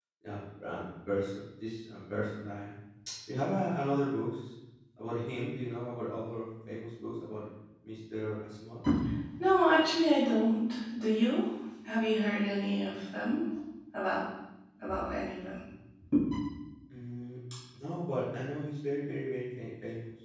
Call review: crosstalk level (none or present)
none